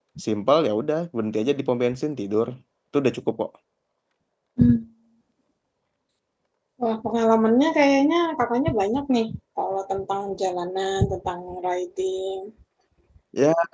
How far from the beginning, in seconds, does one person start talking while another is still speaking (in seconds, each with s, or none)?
none